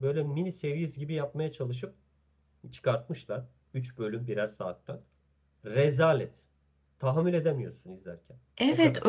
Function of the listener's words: taking over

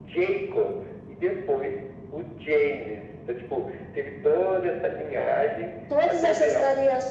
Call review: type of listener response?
taking over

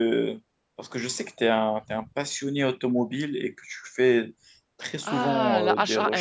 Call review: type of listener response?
taking over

